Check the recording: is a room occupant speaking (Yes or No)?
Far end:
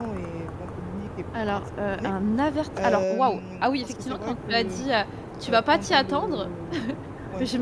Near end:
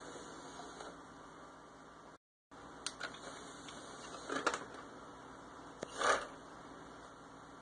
No